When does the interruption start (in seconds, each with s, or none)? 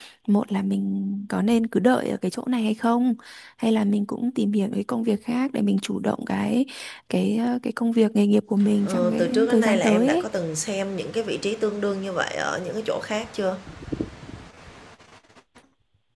8.6 s